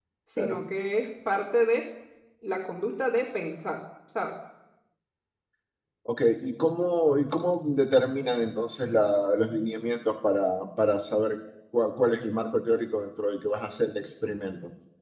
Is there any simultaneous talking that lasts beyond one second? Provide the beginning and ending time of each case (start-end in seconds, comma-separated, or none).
none